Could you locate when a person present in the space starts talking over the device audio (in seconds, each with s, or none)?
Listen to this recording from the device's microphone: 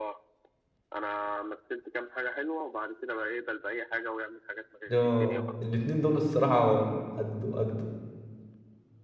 4.9 s